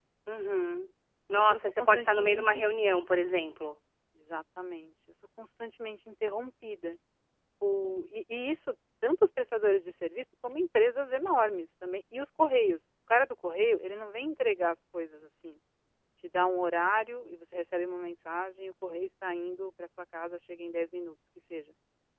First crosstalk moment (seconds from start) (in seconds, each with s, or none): 1.3 s